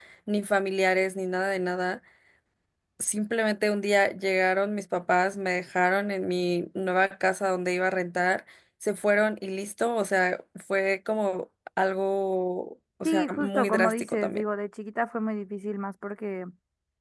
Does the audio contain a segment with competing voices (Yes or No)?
Yes